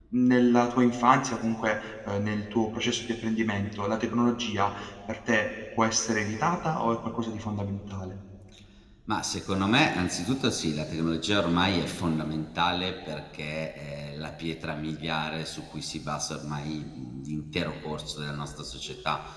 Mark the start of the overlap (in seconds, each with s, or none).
none